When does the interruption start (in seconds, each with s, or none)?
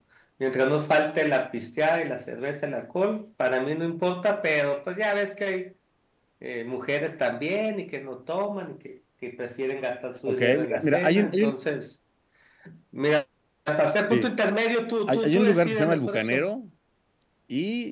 10.3 s